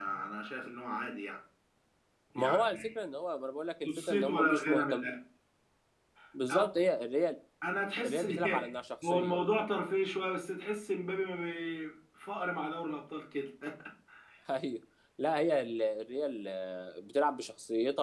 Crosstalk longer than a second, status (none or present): present